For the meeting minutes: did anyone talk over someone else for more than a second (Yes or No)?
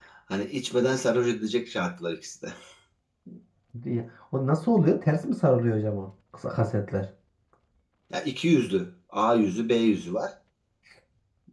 No